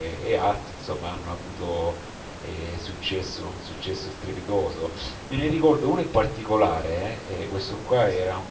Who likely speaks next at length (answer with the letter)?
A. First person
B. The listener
A